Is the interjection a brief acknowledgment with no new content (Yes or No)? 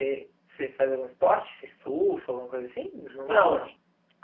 No